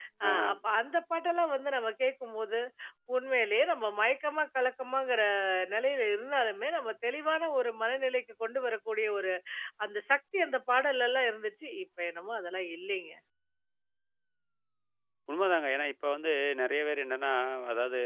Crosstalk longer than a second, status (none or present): none